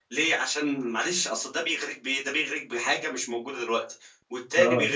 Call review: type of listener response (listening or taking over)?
taking over